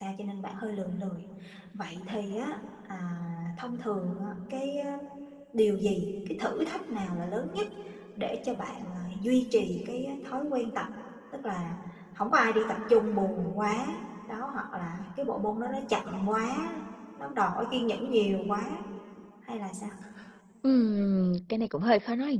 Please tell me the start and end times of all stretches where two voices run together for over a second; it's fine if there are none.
none

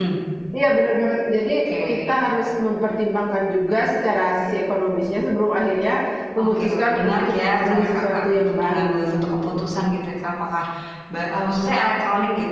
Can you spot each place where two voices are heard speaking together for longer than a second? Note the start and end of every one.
6.4-9.7

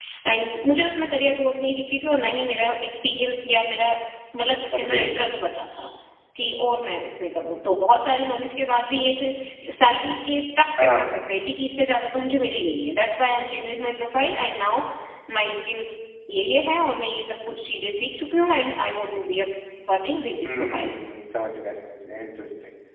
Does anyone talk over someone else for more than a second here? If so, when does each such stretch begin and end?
none

